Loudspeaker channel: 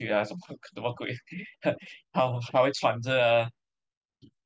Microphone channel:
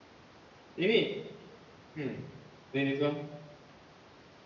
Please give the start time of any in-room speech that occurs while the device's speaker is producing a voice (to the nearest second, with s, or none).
1 s